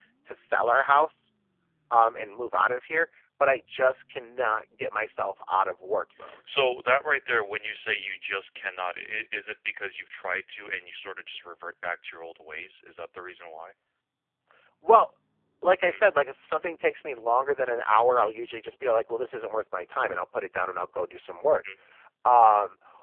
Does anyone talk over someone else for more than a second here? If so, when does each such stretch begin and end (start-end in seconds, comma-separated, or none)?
none